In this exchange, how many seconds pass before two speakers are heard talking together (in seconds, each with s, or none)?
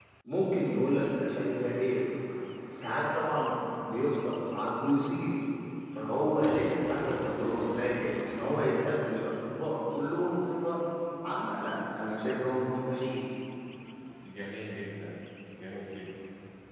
none